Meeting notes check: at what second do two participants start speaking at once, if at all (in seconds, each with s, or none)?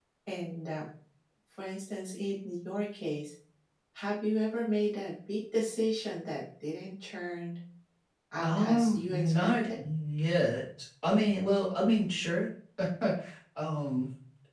8.4 s